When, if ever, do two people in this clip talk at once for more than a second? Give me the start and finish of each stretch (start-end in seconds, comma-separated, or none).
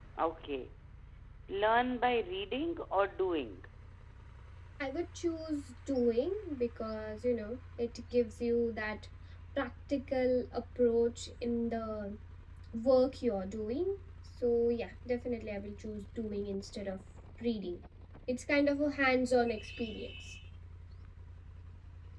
none